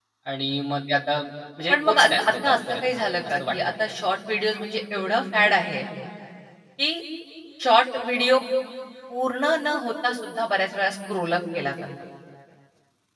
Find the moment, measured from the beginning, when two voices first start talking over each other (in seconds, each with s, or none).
1.7 s